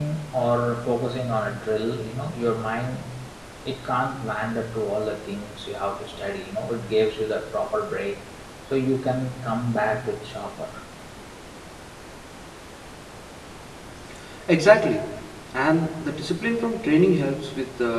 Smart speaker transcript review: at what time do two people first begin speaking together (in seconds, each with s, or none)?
none